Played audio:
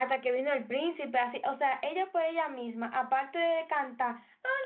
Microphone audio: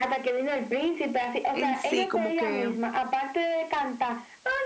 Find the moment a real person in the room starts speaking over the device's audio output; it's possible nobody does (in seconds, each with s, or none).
1.5 s